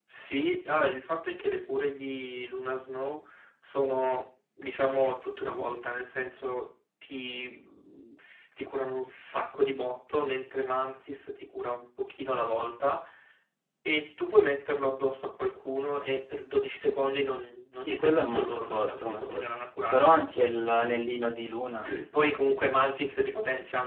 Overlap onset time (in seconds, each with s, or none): 17.8 s